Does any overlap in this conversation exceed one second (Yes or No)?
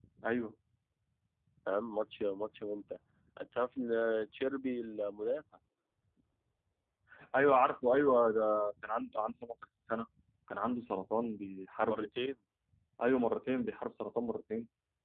No